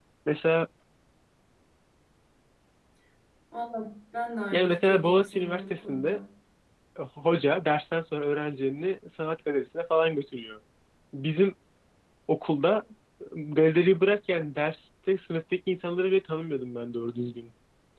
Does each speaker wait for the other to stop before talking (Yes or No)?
No